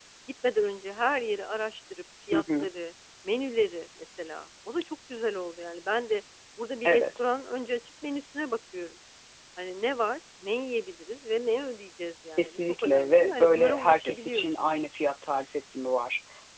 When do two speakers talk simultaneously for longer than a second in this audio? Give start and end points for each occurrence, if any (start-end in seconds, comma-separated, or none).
12.3-14.4